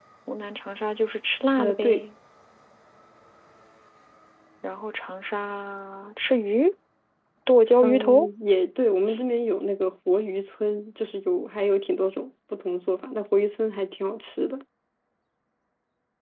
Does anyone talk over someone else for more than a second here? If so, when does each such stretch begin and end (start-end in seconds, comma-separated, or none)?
none